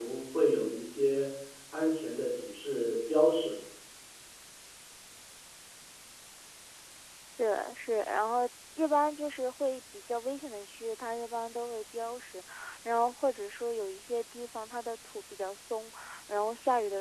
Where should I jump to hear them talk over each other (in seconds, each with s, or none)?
none